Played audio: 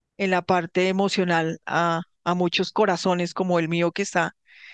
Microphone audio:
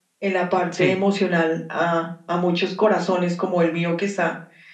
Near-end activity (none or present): present